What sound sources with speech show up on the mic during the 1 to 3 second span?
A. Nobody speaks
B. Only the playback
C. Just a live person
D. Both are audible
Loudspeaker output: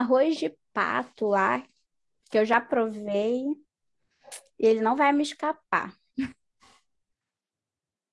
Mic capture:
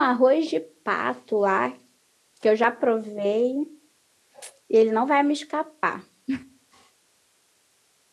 B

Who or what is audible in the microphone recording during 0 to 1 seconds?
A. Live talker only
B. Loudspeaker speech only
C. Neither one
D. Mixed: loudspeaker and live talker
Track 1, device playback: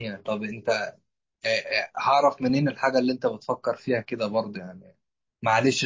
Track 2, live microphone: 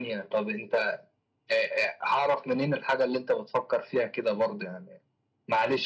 B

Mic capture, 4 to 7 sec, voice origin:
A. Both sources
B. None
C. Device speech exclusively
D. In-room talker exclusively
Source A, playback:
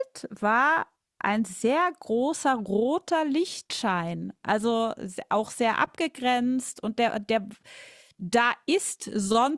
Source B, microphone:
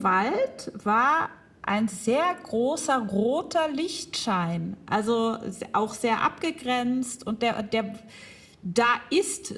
C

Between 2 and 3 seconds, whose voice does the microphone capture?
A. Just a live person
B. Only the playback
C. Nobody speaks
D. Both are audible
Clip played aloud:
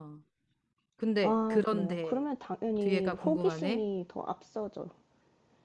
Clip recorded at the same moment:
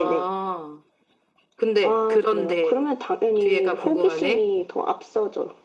B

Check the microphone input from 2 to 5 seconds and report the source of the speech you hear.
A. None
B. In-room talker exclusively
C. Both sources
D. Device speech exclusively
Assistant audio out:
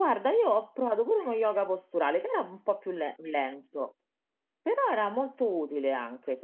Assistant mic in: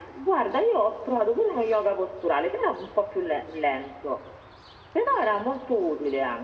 D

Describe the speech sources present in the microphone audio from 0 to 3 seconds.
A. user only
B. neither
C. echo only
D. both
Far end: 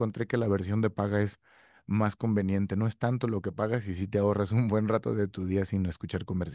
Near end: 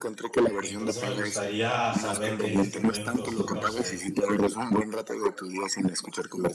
D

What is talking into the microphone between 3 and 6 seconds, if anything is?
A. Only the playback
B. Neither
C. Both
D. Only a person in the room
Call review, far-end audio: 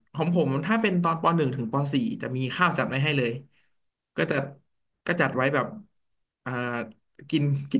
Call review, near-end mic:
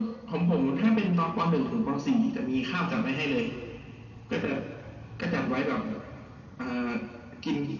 A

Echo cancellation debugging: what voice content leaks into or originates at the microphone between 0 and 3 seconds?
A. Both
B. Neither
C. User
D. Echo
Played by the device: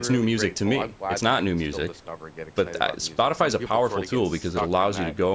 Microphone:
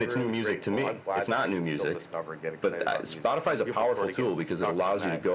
D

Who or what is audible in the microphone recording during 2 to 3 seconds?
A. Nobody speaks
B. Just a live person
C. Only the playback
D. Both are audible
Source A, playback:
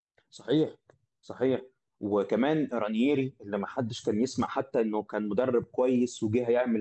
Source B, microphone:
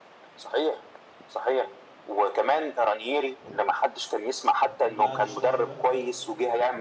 C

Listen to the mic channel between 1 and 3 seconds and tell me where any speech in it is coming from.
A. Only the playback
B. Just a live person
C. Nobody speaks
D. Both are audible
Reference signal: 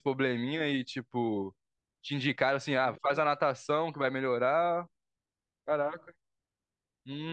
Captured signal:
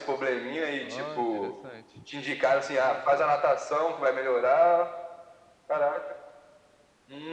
D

